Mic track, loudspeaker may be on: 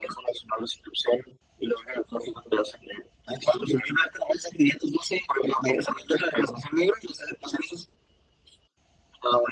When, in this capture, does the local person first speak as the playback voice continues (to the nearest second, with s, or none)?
none